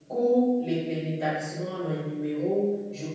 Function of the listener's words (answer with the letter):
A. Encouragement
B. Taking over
A